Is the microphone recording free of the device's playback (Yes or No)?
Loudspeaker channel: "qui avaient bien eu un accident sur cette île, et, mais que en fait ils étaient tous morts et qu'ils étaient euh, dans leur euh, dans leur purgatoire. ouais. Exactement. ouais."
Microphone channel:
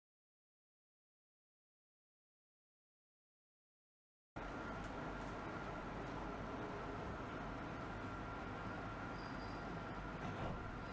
Yes